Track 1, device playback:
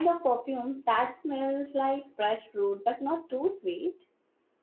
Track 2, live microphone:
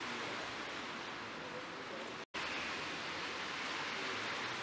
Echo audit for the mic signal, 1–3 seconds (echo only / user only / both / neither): neither